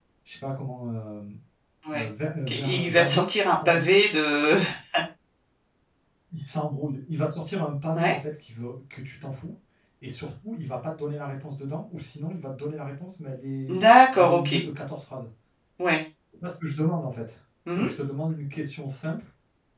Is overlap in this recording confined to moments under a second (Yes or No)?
No